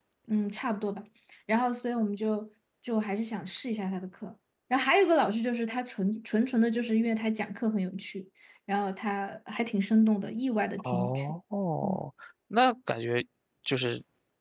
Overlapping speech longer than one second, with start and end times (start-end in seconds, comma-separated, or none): none